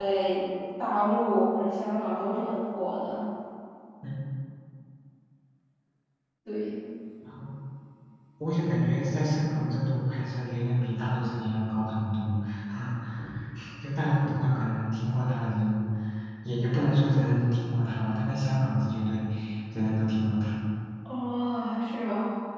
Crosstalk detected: No

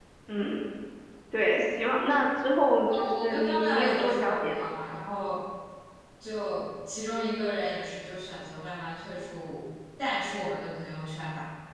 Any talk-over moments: Yes, from 2.8 s

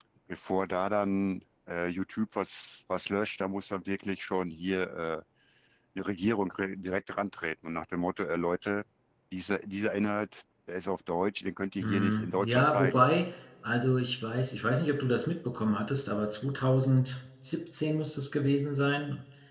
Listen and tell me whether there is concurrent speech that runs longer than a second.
Yes, from 11.8 s

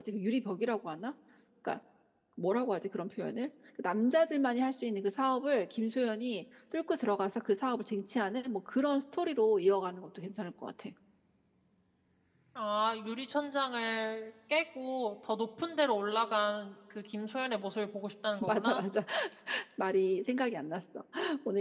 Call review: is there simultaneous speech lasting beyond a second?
No

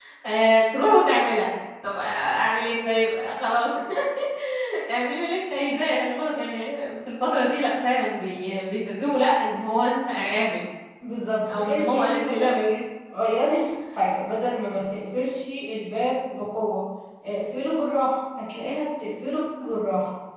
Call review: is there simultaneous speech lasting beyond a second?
Yes, from 11.5 s

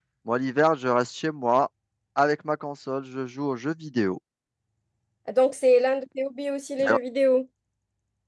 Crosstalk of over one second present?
No

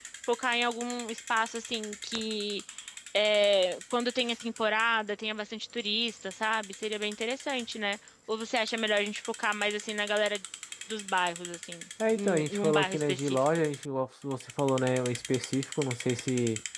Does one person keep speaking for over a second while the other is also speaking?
Yes, from 12.0 s

